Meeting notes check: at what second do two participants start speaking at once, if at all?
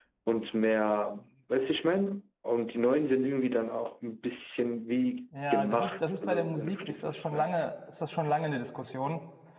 5.3 s

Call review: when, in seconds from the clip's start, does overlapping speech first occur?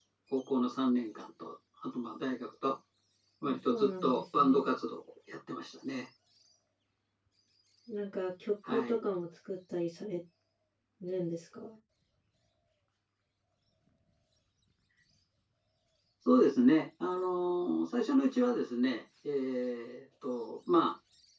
3.4 s

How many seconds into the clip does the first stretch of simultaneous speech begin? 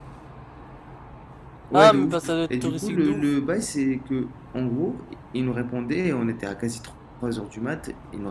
1.7 s

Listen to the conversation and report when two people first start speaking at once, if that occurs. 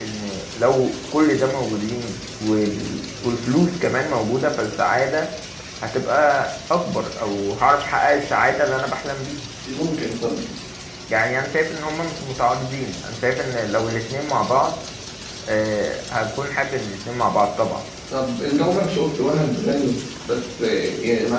none

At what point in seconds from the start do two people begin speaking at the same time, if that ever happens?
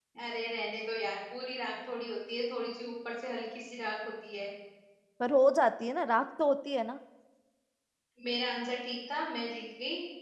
none

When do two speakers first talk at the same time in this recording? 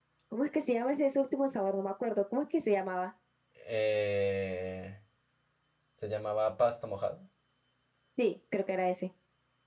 none

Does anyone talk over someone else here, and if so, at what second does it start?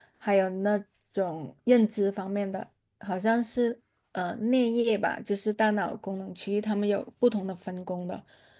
none

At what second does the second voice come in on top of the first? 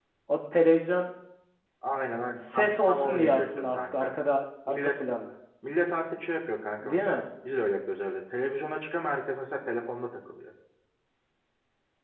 2.5 s

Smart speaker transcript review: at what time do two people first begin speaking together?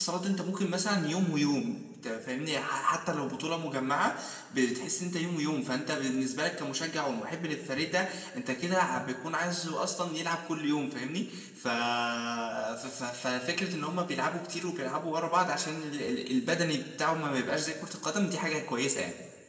none

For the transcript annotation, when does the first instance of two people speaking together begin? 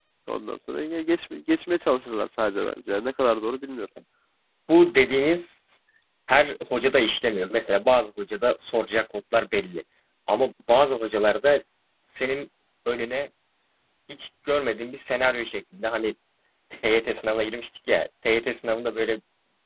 none

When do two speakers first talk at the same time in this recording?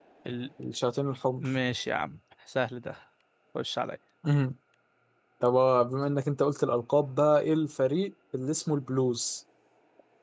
none

